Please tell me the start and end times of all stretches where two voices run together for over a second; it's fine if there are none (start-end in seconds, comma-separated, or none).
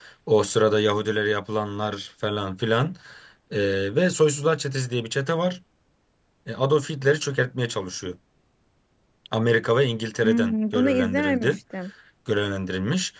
10.2-11.5